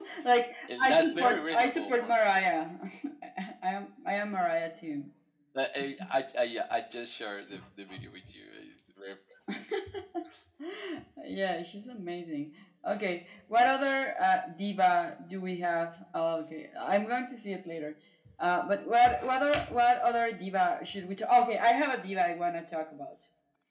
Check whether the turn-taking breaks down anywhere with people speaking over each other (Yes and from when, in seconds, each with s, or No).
Yes, from 0.8 s